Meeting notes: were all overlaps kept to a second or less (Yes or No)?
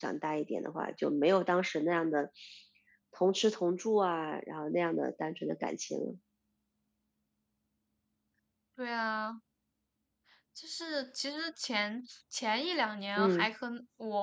Yes